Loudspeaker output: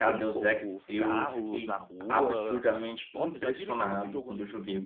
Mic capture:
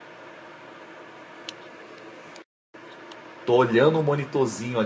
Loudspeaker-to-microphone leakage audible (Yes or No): No